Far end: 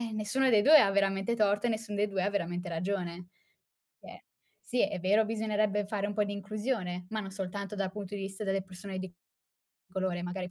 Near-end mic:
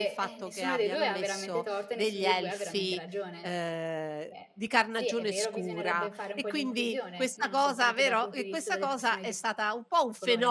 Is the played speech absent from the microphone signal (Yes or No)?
No